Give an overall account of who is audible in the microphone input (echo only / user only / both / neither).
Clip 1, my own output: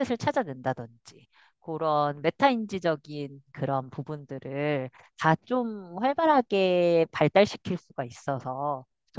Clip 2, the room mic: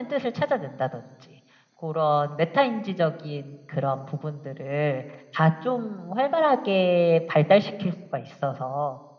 echo only